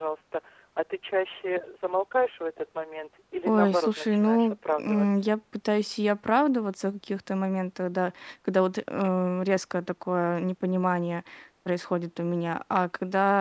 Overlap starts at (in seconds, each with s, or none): 3.5 s